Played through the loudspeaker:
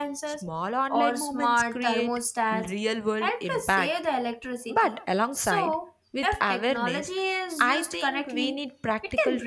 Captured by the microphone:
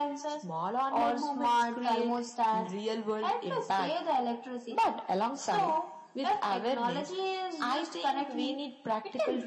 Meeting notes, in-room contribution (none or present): none